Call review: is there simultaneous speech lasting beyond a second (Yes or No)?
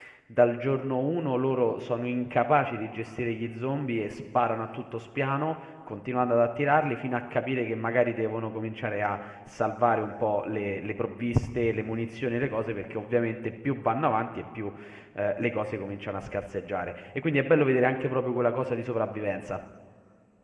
No